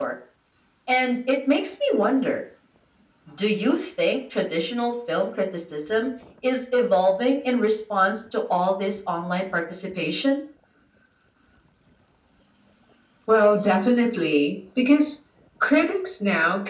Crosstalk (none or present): none